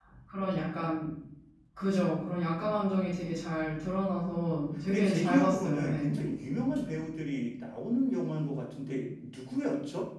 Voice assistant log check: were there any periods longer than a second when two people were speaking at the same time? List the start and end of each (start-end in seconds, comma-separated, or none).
4.9-6.1